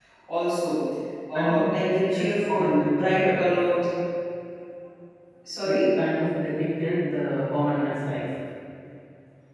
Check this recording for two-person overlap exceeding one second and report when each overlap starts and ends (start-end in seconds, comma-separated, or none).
1.3-3.4